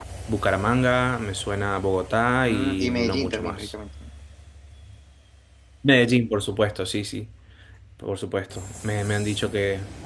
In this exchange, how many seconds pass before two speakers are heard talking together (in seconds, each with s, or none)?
2.5 s